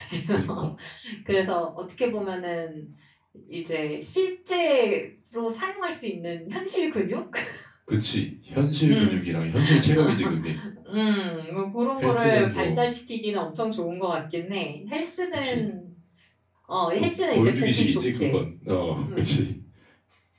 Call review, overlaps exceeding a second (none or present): present